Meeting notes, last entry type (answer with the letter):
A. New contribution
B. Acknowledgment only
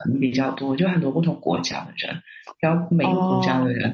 B